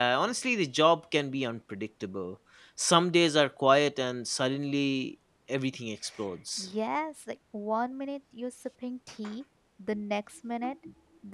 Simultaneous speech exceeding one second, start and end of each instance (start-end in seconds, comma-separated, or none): none